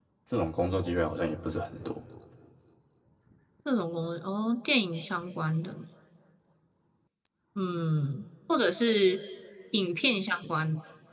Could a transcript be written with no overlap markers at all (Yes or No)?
Yes